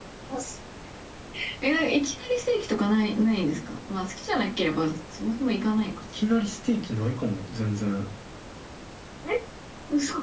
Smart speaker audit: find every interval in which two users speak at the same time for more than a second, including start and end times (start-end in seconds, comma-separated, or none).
none